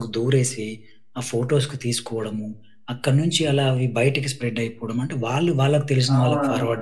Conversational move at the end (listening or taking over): listening